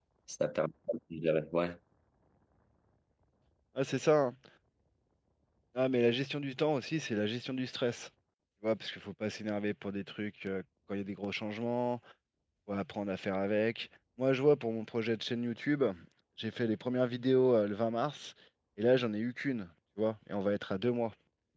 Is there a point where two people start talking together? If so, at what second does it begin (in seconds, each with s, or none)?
none